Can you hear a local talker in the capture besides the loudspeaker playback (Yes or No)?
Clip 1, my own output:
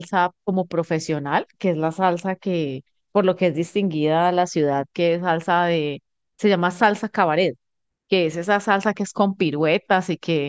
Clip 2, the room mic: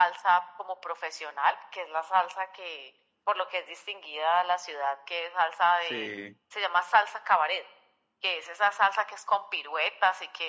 Yes